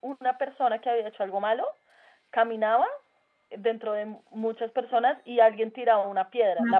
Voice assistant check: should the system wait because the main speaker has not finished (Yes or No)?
Yes